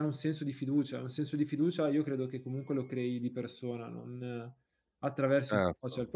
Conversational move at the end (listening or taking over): taking over